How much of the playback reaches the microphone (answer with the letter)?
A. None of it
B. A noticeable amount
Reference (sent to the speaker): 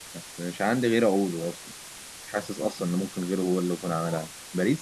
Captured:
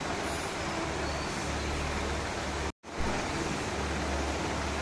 A